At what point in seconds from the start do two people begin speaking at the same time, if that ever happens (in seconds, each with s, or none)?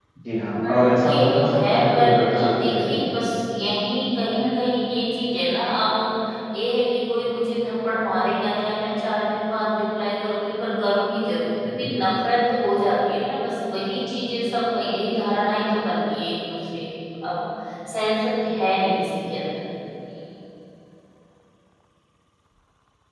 0.6 s